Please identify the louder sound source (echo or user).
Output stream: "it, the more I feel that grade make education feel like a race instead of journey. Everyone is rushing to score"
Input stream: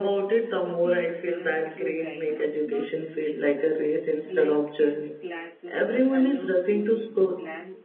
echo